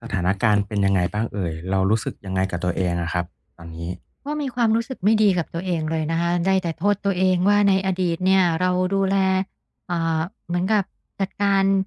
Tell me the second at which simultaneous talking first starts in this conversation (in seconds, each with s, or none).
none